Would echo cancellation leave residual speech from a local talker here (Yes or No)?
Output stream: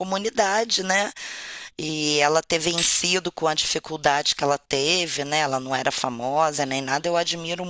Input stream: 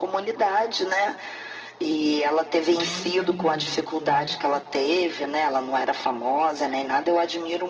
Yes